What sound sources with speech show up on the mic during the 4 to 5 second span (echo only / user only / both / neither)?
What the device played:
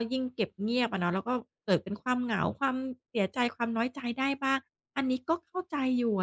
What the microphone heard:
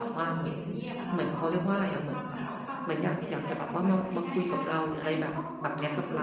both